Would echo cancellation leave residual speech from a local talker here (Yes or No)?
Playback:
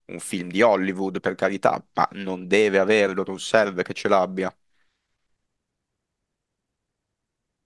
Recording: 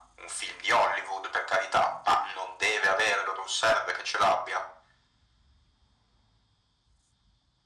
No